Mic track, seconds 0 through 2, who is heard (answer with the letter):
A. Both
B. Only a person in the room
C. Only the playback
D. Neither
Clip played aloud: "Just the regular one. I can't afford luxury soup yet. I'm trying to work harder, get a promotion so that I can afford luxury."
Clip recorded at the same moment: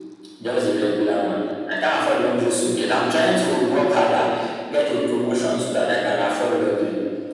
C